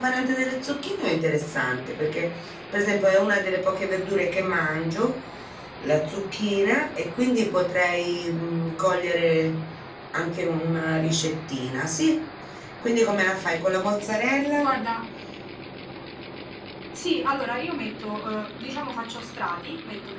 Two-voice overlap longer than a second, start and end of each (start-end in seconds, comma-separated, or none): none